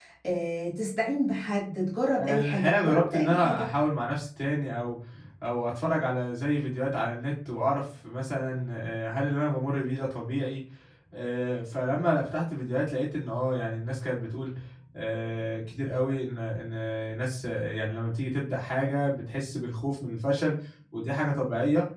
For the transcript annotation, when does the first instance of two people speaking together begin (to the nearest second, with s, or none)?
2 s